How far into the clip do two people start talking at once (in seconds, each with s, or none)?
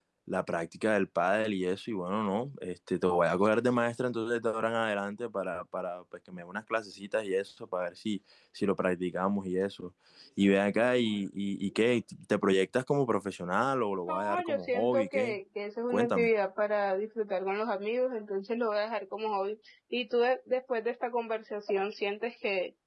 14.1 s